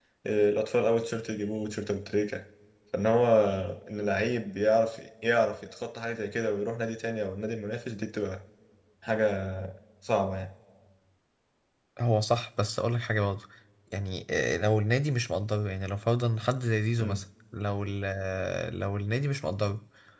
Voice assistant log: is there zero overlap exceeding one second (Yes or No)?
Yes